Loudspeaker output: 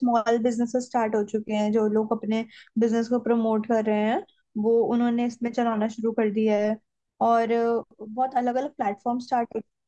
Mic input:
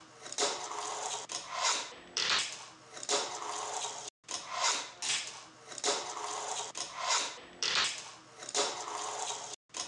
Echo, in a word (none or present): none